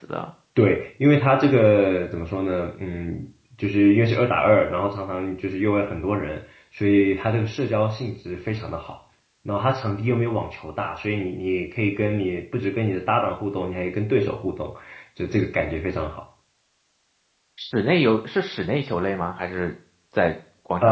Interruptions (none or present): none